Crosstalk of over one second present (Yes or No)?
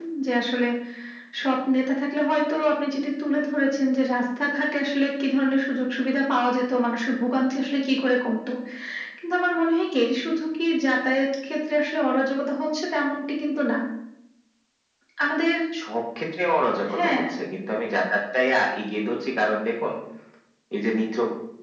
No